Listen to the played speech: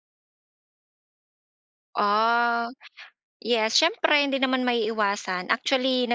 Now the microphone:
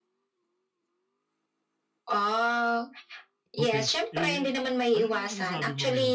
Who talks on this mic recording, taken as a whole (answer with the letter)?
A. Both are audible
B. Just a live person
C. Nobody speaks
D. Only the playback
A